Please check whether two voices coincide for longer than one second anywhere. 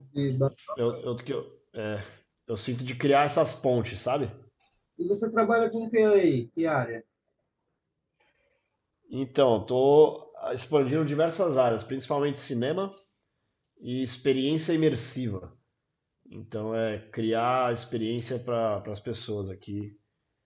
No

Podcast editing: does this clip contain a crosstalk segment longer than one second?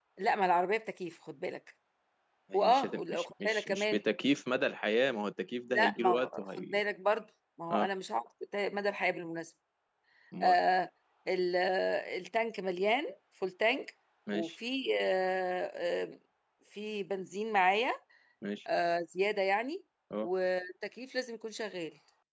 Yes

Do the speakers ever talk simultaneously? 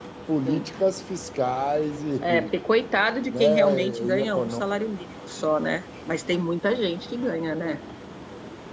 Yes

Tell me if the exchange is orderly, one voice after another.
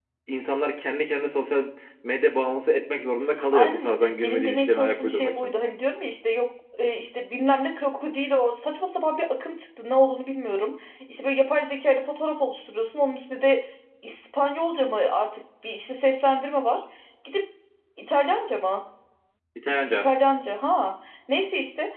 No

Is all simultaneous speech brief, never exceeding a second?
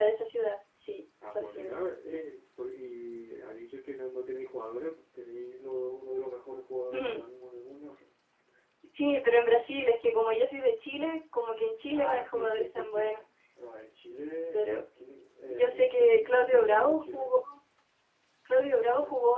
No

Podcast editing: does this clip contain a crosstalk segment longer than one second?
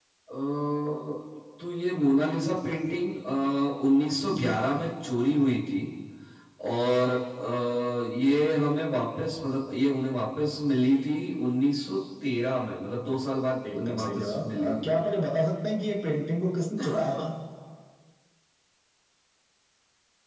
Yes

